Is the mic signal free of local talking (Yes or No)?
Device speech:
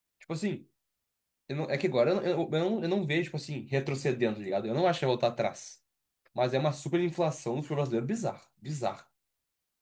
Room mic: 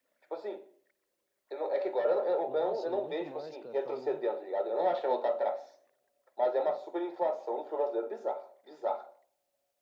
No